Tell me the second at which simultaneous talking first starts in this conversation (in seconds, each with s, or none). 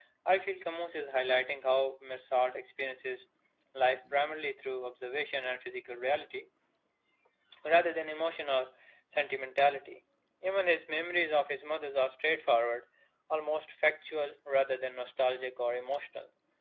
none